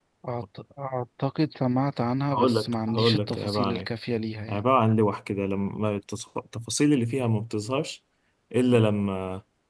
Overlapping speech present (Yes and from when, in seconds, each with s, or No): Yes, from 2.3 s